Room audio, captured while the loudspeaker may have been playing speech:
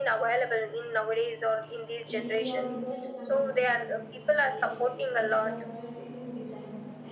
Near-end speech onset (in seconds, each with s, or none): 2.0 s